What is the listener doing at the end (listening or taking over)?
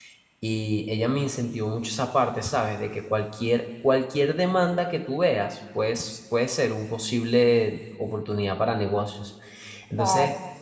listening